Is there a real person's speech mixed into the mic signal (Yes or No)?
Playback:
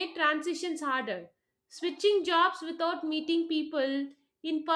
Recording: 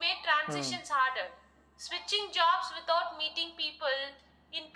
Yes